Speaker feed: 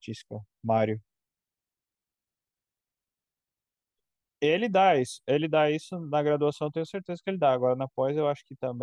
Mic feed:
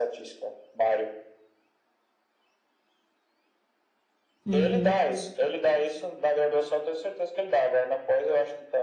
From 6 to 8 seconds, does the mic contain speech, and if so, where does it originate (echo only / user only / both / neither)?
echo only